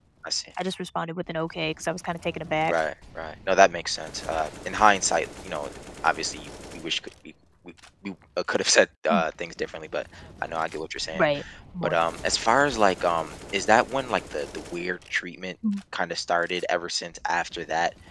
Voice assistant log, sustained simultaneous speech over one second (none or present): none